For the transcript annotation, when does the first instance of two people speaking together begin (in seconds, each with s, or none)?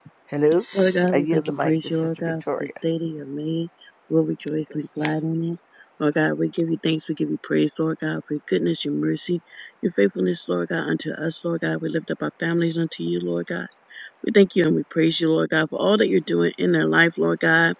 1.1 s